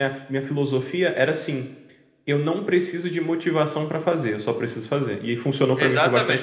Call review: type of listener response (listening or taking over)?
taking over